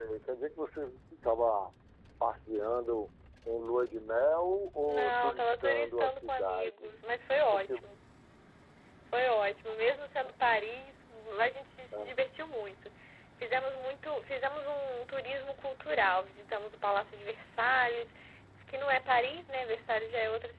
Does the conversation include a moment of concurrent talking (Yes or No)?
Yes